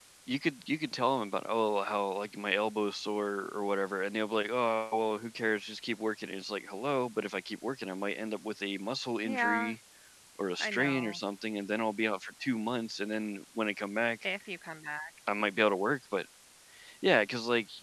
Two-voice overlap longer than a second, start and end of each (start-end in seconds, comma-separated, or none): none